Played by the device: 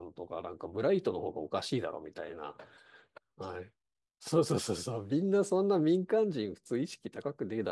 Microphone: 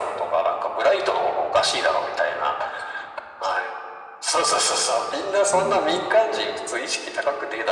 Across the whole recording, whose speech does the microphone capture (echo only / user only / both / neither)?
both